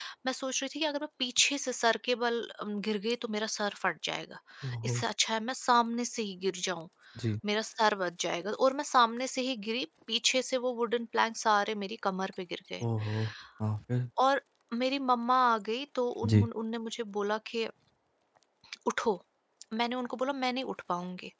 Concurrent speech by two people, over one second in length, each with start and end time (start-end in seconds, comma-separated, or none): none